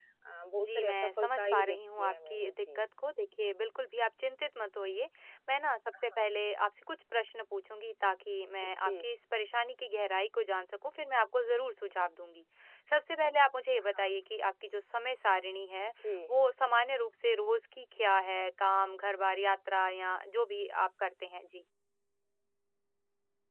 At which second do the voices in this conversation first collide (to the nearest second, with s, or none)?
1 s